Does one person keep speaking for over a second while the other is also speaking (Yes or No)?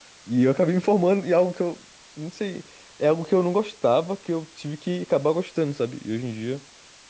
No